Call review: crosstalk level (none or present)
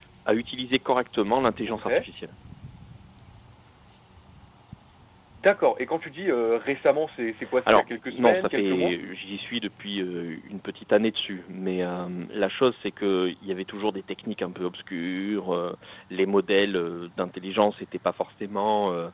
present